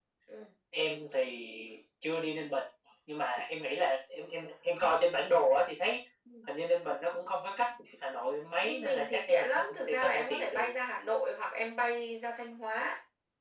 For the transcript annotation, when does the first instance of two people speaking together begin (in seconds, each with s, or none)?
8.6 s